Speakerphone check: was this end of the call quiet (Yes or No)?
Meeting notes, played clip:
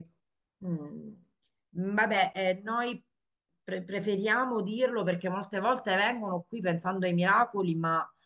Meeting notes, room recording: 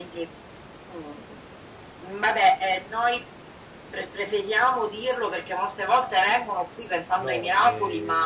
No